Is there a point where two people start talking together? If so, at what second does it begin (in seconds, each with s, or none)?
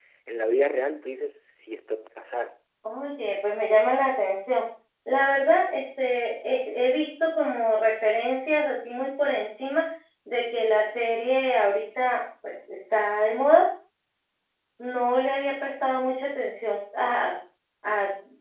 none